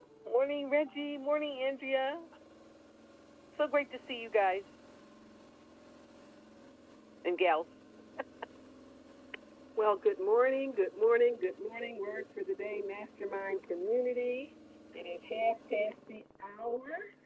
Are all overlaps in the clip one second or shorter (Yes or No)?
Yes